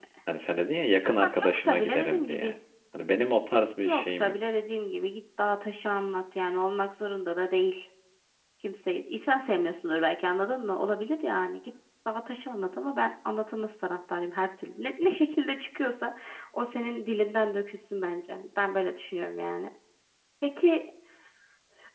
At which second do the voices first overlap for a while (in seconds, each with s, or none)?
1.2 s